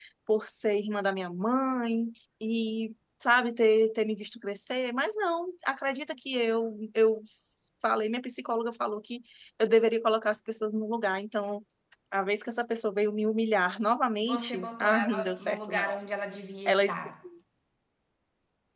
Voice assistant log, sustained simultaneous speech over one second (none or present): present